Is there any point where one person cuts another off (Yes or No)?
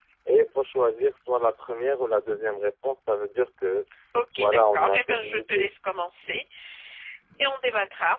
Yes